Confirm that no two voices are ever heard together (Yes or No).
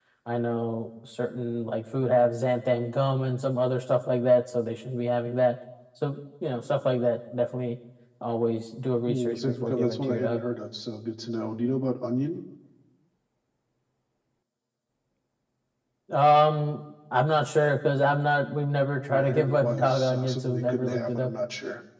No